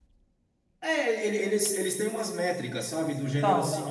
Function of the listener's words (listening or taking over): listening